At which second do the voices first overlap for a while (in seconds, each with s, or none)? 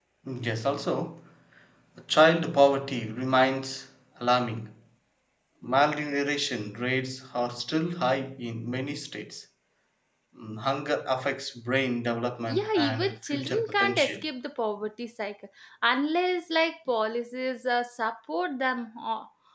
12.5 s